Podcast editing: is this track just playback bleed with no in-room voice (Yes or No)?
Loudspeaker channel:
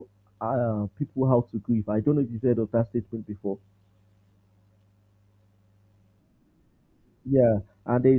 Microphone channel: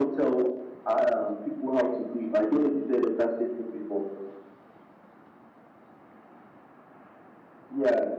Yes